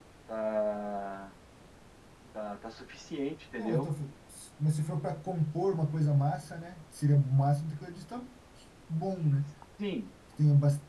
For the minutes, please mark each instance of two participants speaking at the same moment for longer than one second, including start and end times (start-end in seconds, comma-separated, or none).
none